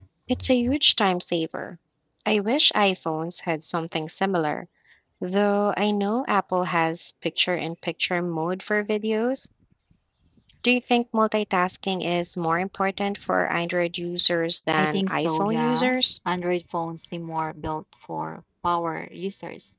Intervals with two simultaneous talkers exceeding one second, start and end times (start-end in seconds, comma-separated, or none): 14.8-16.0